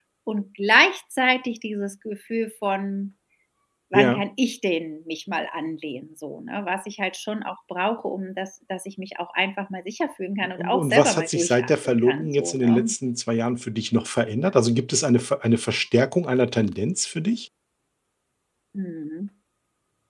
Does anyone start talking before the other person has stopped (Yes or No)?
Yes